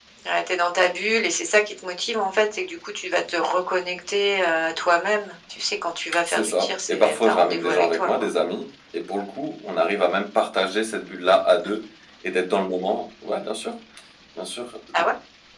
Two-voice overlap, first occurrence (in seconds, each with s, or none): 6.3 s